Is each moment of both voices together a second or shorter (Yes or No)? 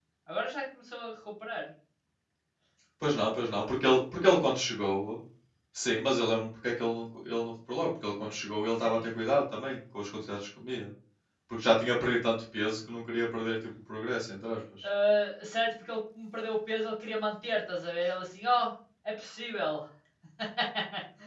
Yes